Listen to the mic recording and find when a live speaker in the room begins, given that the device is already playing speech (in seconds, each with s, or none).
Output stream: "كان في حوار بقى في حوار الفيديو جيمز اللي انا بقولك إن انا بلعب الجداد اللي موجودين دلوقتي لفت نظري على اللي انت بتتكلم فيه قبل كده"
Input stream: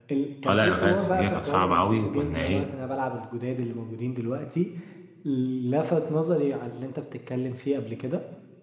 0.5 s